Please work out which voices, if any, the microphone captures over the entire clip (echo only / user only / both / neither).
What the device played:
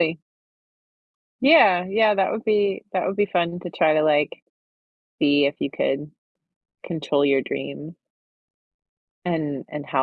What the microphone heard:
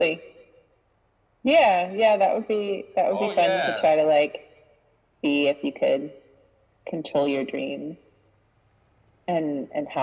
both